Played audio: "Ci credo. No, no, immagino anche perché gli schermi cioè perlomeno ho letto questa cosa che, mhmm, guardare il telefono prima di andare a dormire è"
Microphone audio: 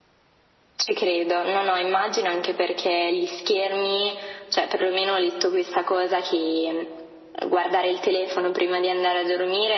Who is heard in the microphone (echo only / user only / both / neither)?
echo only